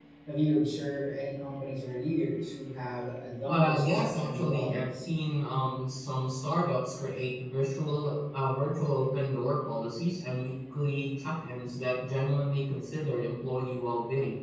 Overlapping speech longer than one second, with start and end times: 3.5-4.8

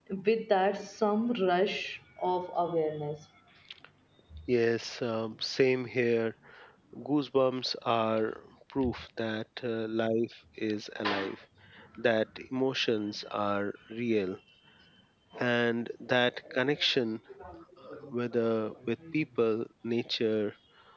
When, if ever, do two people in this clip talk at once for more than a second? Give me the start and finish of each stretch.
none

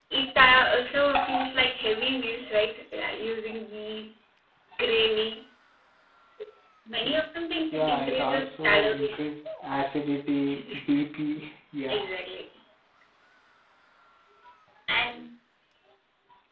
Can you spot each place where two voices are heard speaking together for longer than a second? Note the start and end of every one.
7.7-9.2

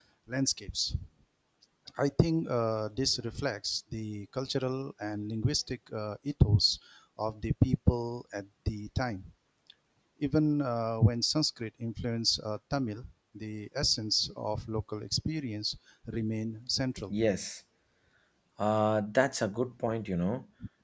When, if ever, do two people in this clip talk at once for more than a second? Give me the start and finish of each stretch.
none

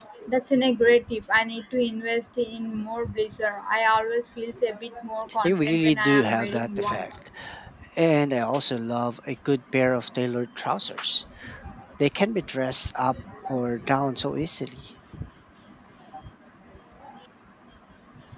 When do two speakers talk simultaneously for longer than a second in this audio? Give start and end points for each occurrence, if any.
5.4-7.0

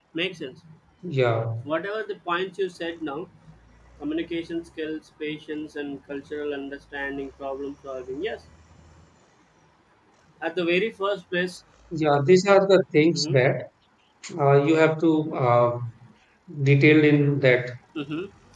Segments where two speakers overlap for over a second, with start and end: none

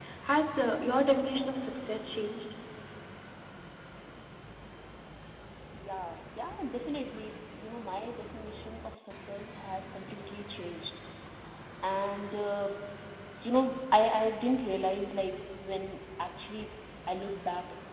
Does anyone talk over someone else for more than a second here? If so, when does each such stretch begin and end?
none

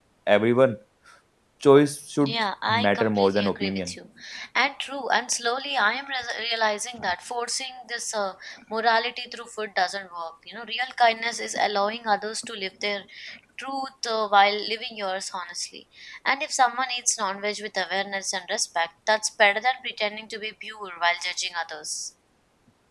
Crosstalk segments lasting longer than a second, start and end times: 2.7-3.9

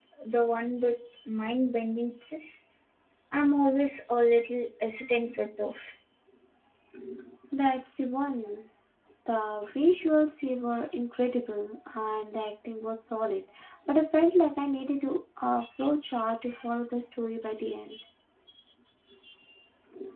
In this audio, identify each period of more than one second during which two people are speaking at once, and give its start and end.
none

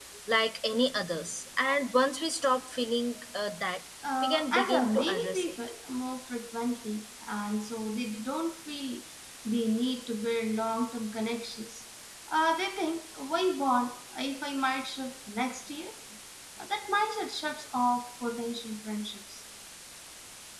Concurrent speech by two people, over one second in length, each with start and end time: 4.2-5.5

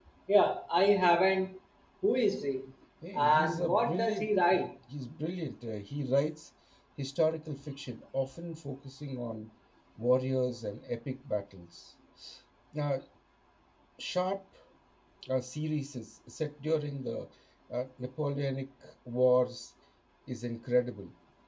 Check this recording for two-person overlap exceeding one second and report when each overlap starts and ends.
3.2-4.6

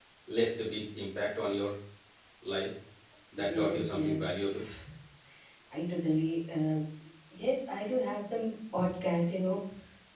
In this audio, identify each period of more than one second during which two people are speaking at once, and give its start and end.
3.4-4.6

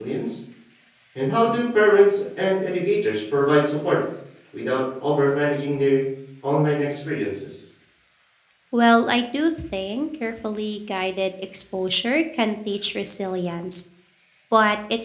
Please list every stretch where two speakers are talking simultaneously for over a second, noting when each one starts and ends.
none

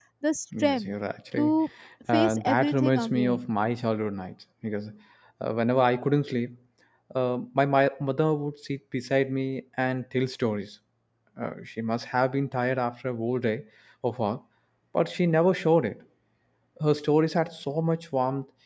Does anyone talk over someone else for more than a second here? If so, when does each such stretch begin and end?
2.1-3.4

